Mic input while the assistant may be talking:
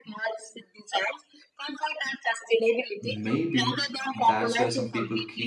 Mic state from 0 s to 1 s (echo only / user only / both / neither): echo only